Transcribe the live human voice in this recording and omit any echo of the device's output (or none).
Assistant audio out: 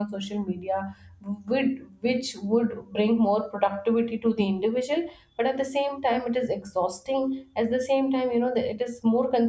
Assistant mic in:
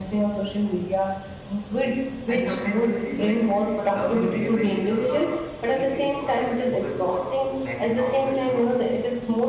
and sometimes i feel like love in real life does not need any perfect poses or magic outfits you know